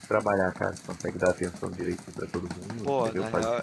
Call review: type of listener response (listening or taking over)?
taking over